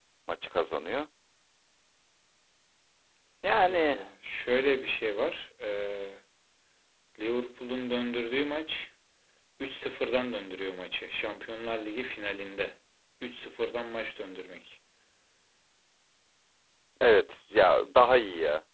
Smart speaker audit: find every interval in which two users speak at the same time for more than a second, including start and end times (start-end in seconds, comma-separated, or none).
none